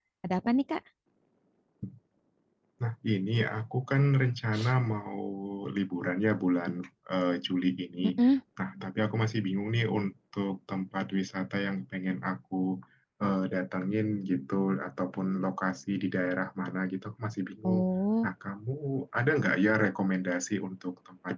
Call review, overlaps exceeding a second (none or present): none